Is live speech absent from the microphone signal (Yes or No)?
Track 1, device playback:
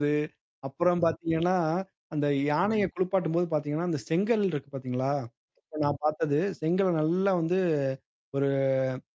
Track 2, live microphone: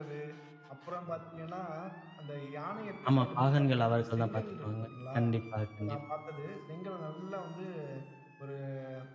No